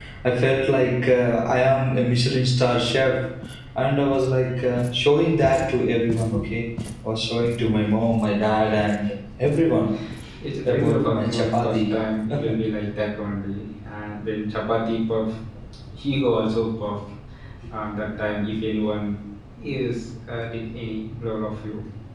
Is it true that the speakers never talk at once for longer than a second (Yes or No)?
No